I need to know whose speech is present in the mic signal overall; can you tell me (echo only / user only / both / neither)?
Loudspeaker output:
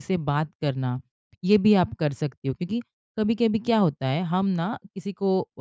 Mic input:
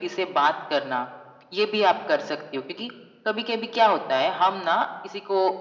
echo only